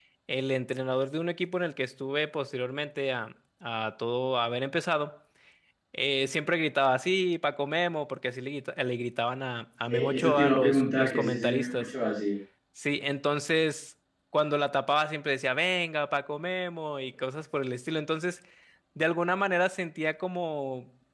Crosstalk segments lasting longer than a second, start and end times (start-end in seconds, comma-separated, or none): 9.9-11.9